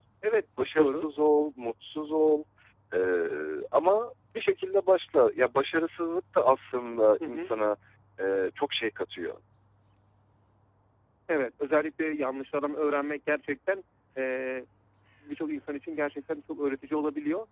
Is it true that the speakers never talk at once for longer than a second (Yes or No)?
Yes